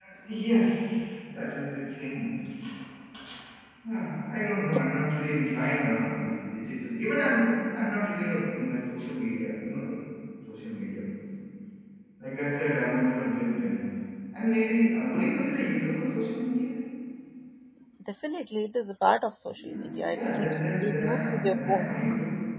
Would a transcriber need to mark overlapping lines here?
Yes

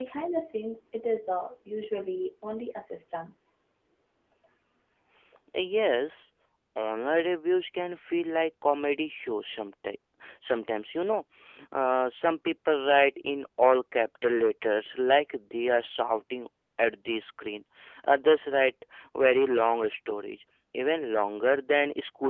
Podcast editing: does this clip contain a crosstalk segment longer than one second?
No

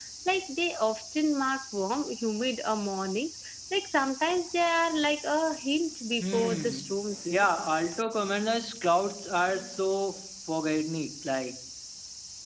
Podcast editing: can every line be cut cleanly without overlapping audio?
No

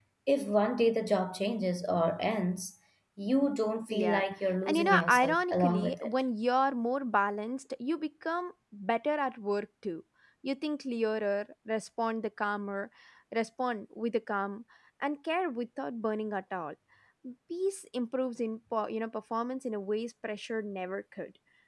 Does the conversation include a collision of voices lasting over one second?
Yes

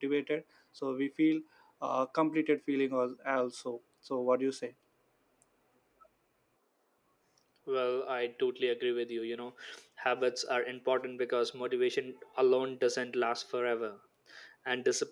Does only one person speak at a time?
Yes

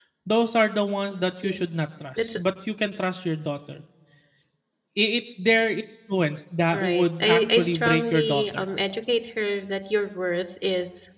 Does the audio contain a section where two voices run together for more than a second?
Yes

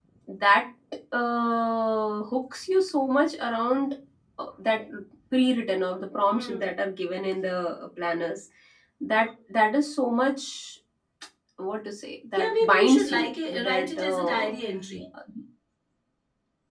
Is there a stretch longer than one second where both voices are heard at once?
Yes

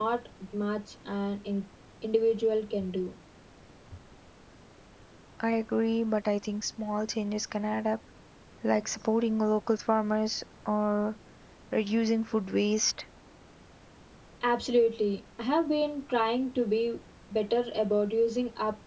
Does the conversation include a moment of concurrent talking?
No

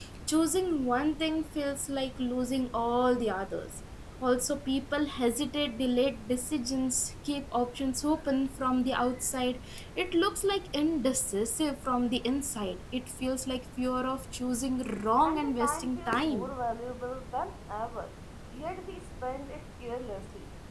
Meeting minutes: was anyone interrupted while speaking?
Yes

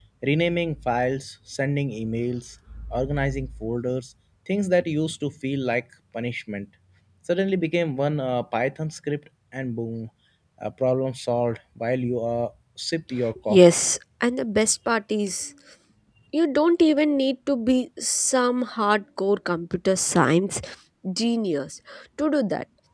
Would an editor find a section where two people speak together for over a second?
No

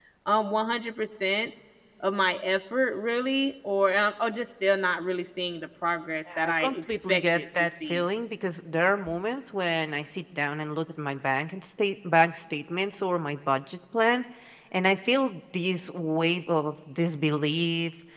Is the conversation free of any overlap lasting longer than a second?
No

